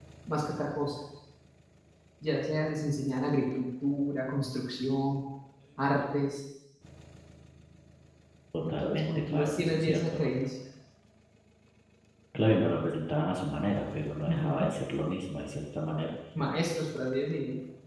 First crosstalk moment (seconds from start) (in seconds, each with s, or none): 8.6 s